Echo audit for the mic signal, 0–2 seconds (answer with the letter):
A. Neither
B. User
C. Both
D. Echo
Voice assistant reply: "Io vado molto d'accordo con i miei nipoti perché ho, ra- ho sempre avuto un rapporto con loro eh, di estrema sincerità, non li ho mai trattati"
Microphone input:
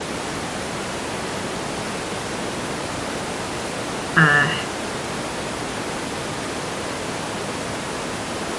A